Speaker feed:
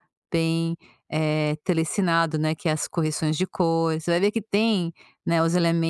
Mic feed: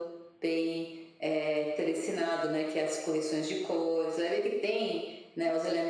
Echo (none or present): present